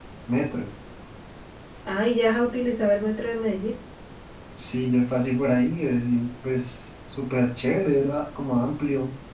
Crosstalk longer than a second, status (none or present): none